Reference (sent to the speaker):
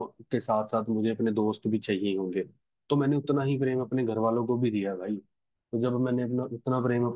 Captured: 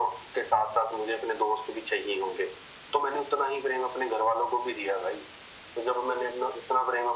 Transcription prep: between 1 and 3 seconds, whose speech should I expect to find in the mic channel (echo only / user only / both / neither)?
echo only